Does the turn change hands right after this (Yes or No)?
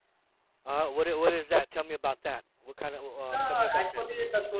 Yes